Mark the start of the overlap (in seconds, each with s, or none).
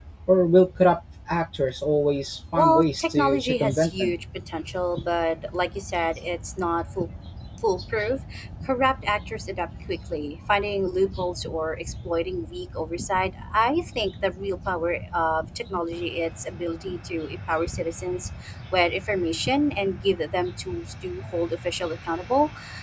2.5 s